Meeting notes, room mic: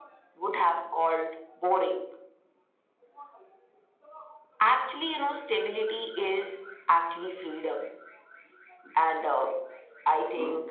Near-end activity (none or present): none